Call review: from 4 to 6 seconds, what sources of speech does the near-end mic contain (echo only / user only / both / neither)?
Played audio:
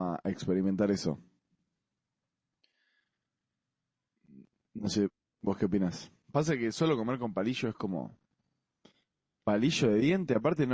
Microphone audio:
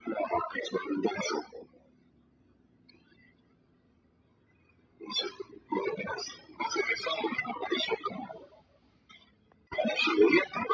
echo only